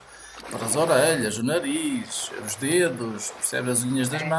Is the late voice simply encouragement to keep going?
Yes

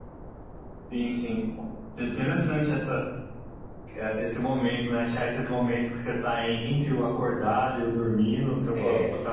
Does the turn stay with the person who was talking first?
Yes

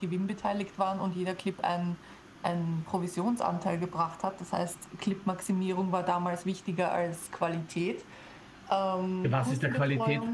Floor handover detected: Yes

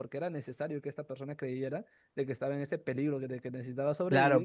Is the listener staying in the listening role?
No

